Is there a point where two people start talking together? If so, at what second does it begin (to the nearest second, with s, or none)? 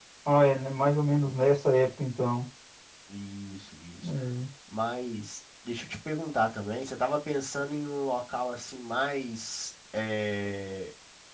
none